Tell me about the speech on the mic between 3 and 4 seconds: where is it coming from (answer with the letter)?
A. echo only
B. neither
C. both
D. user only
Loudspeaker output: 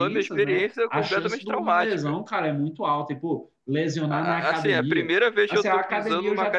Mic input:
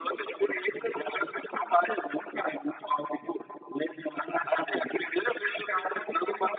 A